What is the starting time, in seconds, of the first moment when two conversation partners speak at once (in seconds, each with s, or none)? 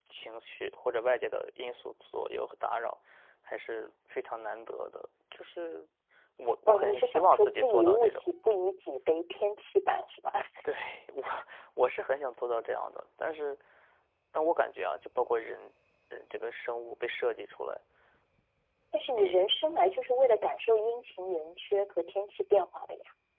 6.7 s